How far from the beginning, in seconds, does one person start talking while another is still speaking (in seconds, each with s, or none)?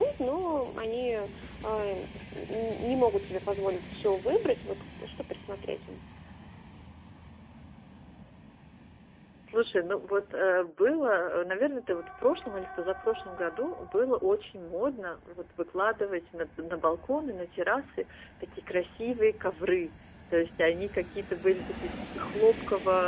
none